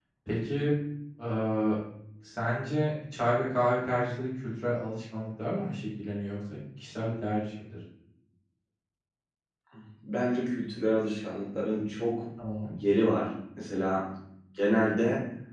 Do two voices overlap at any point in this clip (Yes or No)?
No